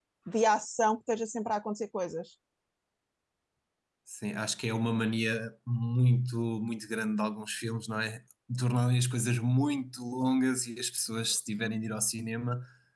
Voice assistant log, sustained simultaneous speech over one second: none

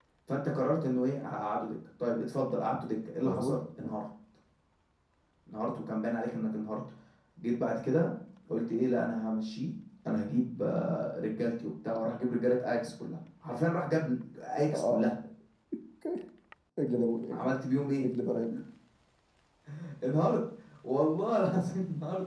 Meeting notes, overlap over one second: none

